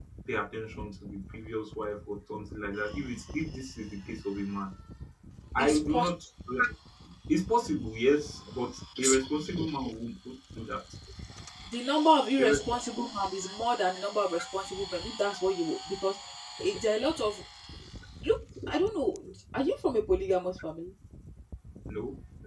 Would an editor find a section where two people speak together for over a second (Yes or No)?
No